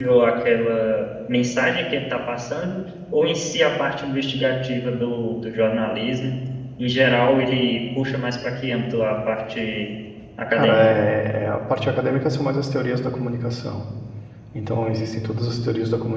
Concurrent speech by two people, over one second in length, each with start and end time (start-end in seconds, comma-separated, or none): none